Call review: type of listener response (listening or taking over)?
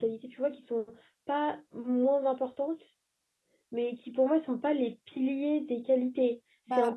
listening